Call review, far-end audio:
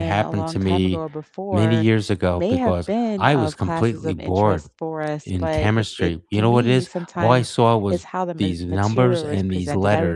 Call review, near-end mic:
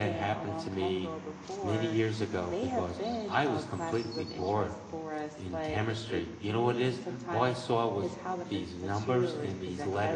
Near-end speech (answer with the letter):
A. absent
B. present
A